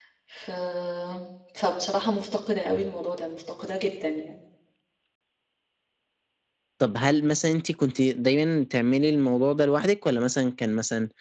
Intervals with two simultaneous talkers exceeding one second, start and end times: none

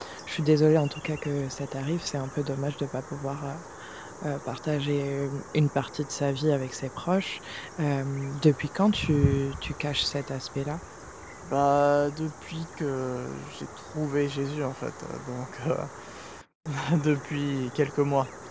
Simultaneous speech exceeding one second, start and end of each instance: none

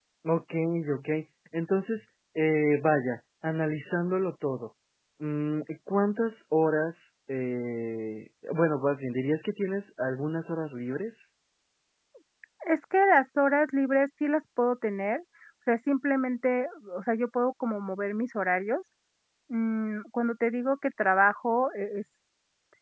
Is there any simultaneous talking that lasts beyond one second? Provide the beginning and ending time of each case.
none

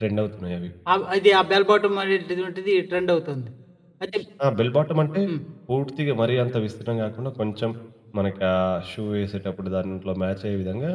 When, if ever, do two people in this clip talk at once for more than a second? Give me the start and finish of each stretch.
none

